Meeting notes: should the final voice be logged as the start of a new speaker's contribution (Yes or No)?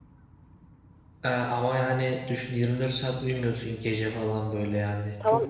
Yes